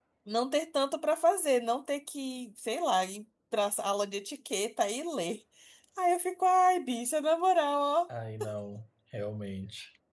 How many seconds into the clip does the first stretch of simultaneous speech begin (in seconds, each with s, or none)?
none